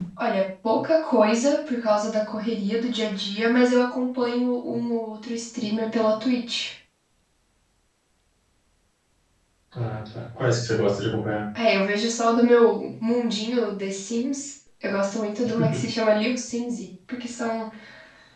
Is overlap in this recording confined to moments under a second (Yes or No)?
Yes